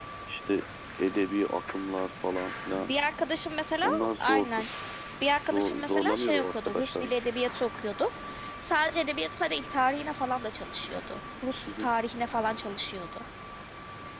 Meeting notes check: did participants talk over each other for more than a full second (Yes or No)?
Yes